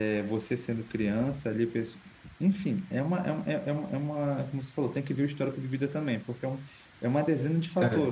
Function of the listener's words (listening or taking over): listening